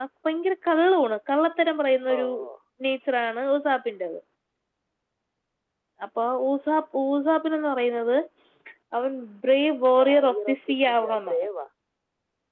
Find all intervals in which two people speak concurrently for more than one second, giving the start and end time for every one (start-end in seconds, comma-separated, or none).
10.0-11.5